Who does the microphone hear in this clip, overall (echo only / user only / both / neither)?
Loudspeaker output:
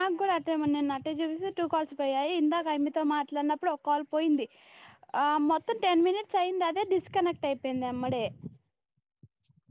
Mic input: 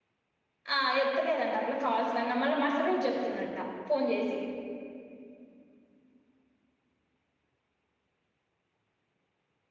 user only